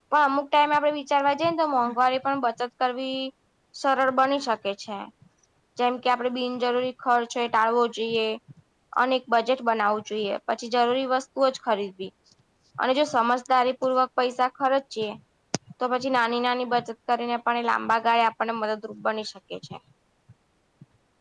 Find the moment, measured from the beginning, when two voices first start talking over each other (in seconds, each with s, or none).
none